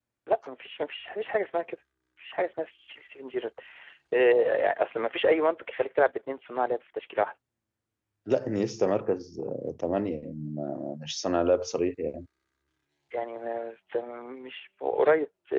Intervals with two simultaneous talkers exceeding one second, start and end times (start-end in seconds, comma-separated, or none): none